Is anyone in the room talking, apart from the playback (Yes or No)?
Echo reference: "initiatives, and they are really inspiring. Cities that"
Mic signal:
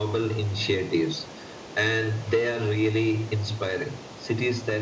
No